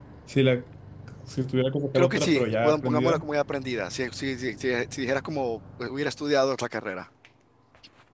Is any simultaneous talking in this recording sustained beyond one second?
Yes, from 2.0 s

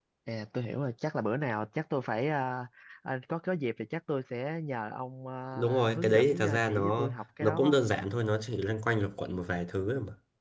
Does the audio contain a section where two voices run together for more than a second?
Yes, from 5.5 s

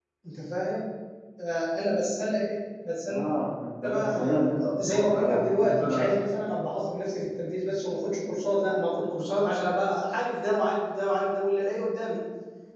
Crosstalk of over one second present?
Yes, from 3.8 s

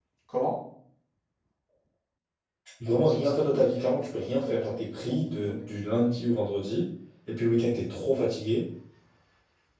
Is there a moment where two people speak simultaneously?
Yes, from 2.9 s

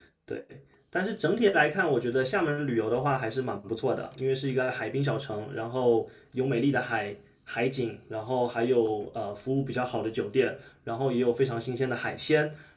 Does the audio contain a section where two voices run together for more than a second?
No

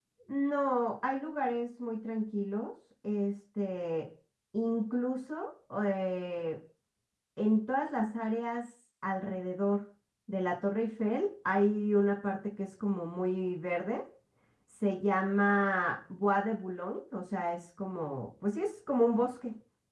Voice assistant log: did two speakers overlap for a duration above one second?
No

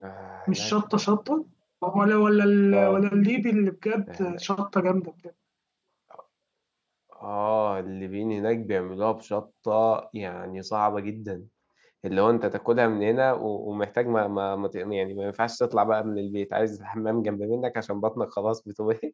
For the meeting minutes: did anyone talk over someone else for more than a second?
No

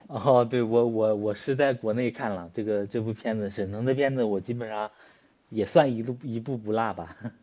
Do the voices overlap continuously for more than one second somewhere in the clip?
No

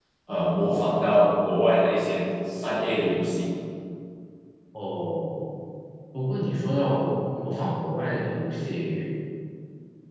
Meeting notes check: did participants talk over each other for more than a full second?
No

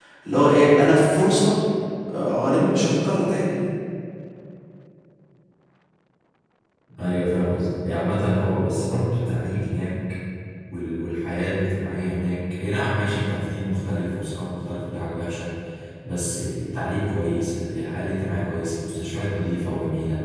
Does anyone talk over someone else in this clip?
No

